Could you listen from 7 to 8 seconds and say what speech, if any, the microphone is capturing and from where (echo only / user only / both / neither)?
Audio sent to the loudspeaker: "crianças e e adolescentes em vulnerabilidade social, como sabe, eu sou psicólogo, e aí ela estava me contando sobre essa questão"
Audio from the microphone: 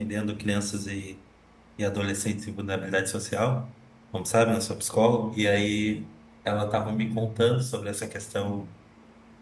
echo only